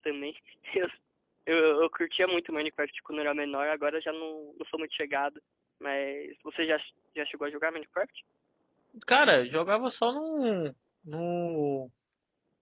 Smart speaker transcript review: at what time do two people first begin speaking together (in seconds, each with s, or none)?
none